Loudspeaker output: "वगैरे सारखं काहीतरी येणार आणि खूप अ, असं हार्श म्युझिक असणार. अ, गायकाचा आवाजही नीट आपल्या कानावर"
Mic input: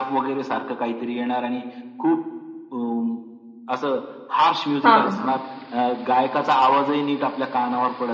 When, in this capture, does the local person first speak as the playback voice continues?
4.8 s

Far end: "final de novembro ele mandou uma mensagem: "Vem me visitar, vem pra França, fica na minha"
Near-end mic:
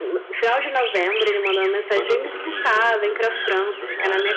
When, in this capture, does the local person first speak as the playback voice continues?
1.9 s

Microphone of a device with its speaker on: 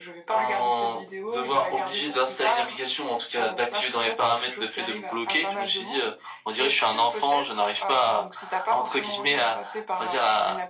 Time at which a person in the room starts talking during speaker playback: none

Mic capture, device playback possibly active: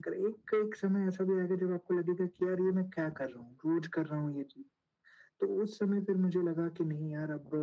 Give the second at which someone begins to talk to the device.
none

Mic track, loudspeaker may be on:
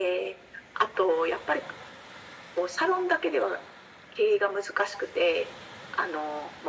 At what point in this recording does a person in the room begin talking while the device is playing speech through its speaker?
none

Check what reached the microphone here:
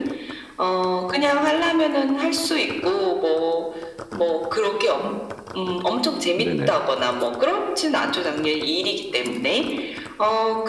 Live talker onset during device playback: 6.4 s

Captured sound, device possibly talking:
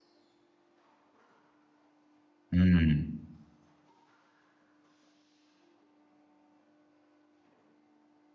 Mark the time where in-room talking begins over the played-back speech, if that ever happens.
2.5 s

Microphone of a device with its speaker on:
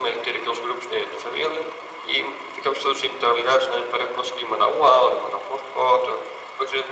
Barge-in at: none

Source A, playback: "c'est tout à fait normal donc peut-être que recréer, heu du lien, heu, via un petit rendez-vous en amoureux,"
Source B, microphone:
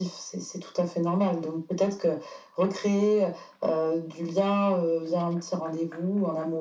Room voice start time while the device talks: none

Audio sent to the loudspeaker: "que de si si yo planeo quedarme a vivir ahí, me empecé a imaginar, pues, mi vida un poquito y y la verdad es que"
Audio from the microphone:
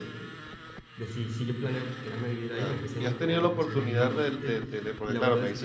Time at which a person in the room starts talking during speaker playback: 2.5 s

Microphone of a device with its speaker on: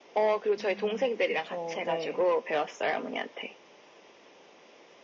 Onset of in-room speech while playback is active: 0.6 s

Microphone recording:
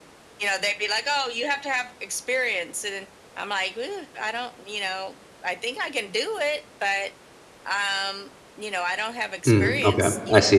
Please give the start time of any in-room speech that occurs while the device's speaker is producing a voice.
9.5 s

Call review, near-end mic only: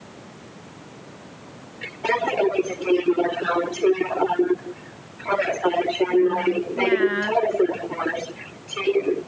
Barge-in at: 6.0 s

